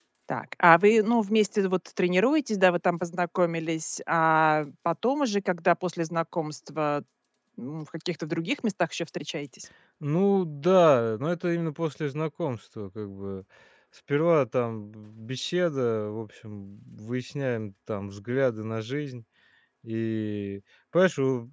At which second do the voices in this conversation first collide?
none

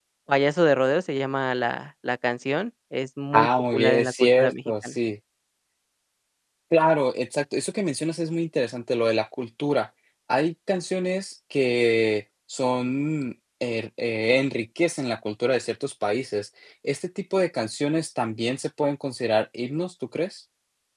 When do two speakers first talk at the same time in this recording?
3.3 s

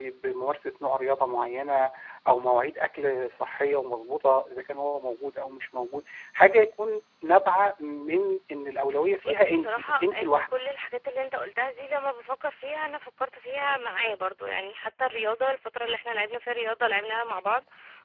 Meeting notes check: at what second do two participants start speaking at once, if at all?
9.2 s

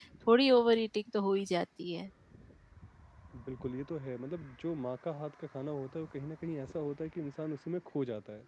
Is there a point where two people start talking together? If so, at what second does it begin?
none

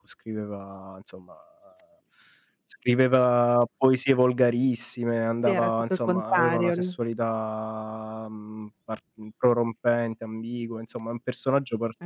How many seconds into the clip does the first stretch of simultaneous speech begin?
5.5 s

